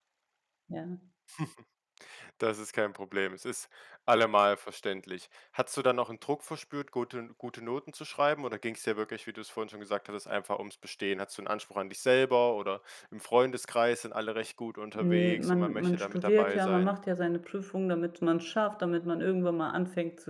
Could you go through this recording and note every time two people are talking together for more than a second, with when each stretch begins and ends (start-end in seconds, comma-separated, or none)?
15.0-16.9